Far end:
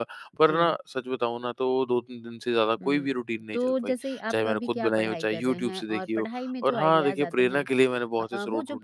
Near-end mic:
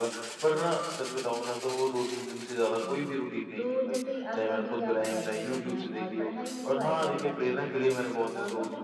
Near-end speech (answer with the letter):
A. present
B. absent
B